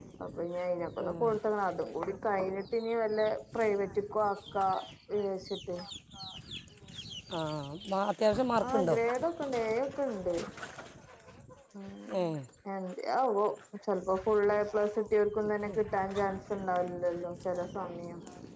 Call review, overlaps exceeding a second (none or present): none